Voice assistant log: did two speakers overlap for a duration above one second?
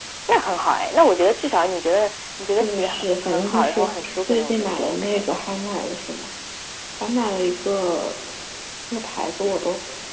Yes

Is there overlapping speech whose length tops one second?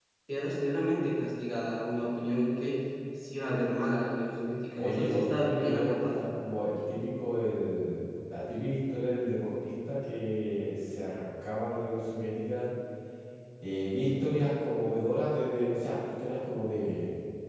Yes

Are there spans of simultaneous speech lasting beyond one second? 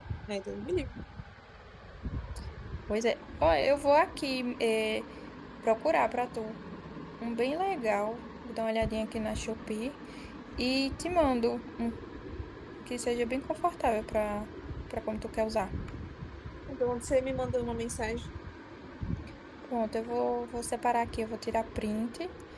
No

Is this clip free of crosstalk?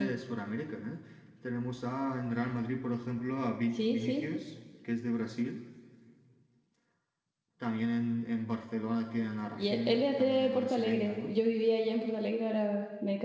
No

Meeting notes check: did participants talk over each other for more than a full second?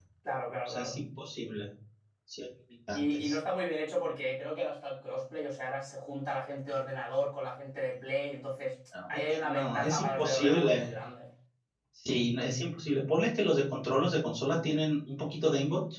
Yes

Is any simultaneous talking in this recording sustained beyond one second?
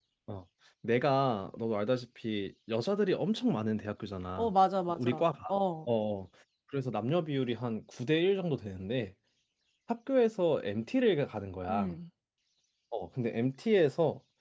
No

